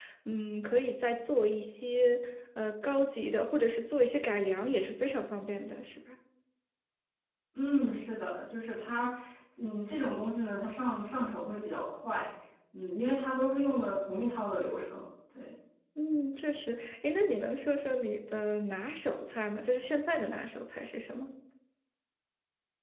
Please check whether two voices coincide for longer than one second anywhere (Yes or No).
No